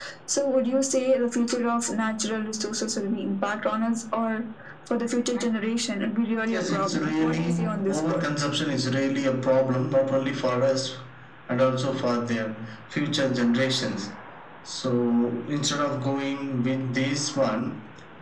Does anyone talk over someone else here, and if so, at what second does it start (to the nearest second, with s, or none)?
6 s